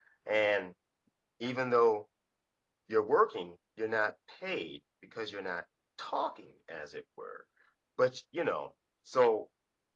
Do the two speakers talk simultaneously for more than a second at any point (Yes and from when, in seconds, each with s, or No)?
No